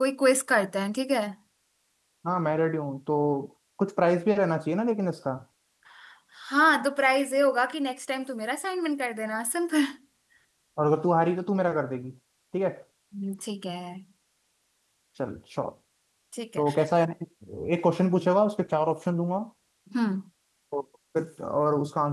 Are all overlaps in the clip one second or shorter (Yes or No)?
Yes